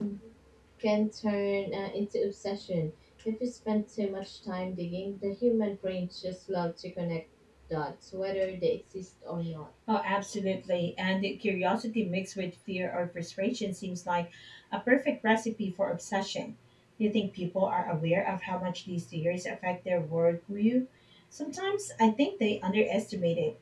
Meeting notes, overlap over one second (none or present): none